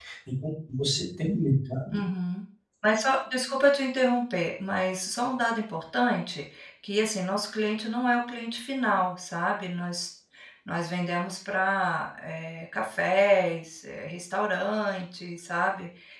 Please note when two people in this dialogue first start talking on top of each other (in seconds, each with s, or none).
none